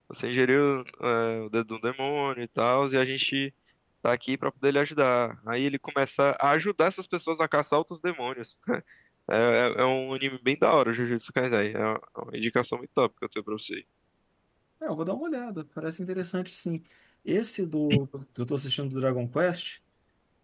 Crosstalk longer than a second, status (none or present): none